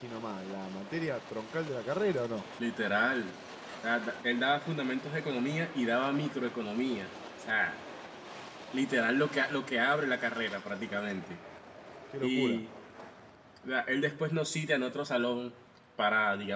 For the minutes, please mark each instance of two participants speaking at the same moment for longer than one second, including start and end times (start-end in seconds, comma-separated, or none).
none